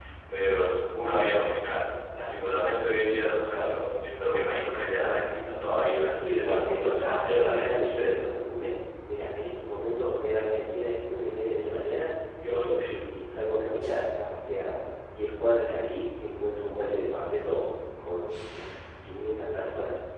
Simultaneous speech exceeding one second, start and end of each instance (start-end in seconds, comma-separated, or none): 6.2-8.3